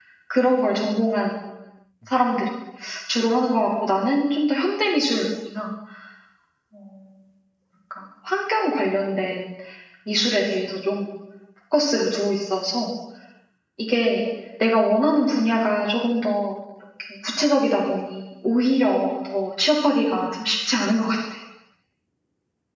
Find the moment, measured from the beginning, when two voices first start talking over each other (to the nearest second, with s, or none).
none